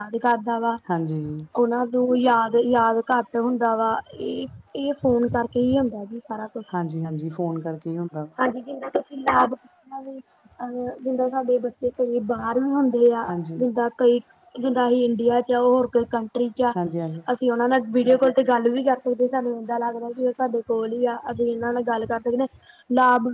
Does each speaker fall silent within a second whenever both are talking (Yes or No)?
Yes